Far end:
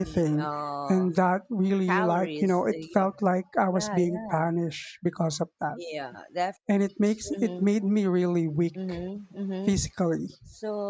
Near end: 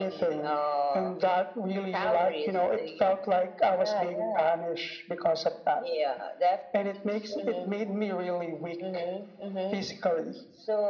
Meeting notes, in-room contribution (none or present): none